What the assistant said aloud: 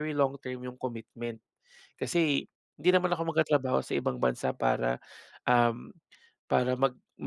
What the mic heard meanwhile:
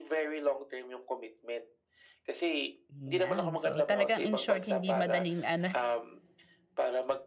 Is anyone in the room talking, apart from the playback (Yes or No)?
Yes